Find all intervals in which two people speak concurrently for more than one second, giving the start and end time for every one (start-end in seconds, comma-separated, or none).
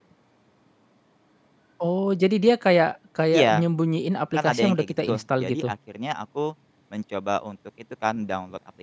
4.4-5.7